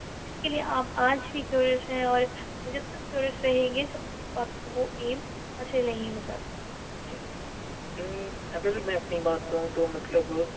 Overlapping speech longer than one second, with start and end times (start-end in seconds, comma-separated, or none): none